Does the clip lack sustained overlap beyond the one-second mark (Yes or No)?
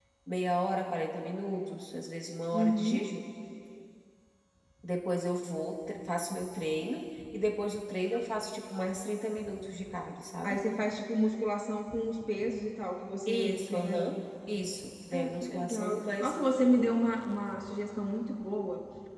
No